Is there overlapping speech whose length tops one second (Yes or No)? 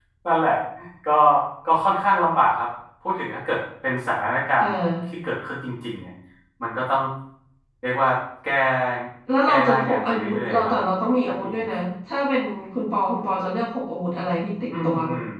Yes